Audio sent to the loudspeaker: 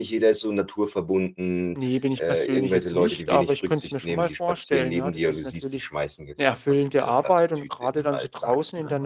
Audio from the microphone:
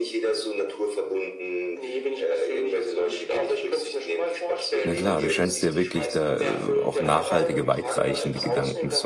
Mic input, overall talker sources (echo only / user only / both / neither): both